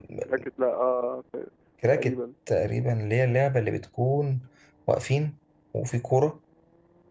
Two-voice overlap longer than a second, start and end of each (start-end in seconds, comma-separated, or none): none